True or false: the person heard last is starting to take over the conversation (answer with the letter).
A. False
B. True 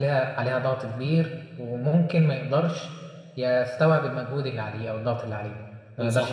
B